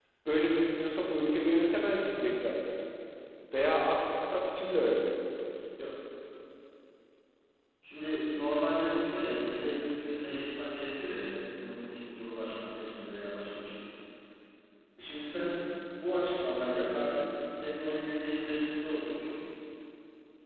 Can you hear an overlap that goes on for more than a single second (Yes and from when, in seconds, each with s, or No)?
No